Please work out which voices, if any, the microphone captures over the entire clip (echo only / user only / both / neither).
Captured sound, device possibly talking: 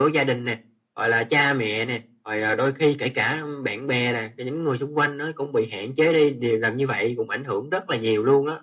echo only